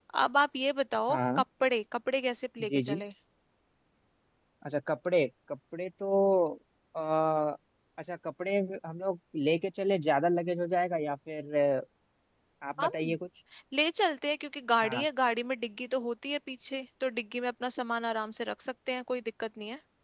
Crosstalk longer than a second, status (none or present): none